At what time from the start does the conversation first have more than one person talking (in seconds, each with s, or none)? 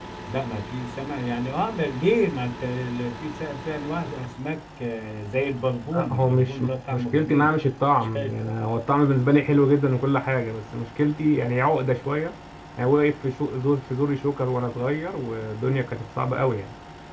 5.9 s